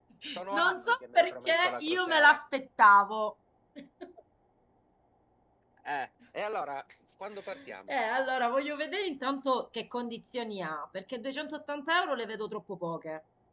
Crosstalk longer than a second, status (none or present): present